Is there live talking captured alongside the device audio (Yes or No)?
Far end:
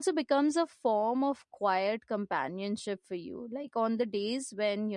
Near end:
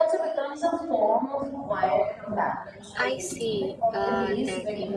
Yes